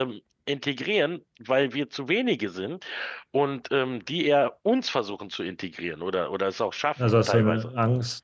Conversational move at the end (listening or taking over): taking over